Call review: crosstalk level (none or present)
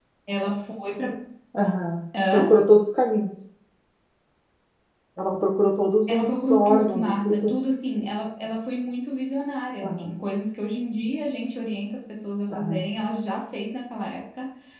present